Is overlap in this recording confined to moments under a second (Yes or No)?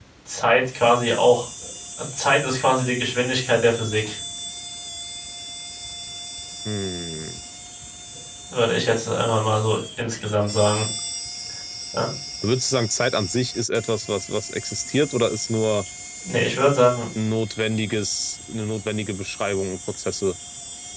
Yes